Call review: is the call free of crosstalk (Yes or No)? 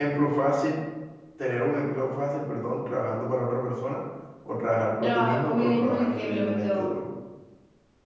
No